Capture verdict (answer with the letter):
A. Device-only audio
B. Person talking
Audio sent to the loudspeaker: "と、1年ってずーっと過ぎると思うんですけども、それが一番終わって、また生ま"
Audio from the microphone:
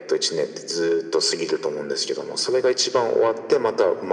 A